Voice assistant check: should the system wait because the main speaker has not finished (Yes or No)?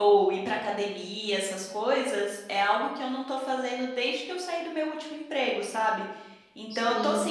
Yes